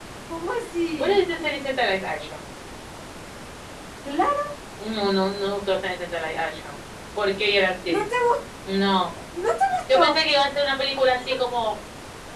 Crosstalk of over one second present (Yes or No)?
No